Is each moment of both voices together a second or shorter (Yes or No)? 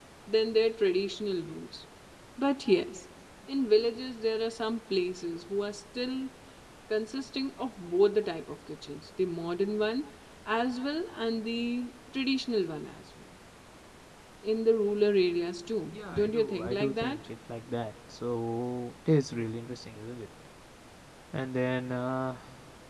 No